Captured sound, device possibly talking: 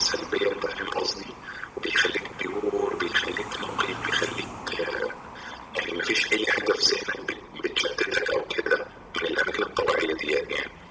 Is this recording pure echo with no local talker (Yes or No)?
Yes